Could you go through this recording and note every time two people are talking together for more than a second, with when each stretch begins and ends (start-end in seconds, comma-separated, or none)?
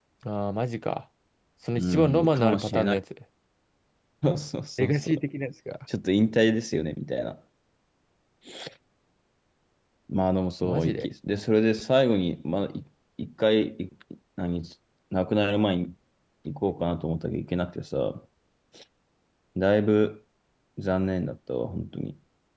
1.8-3.0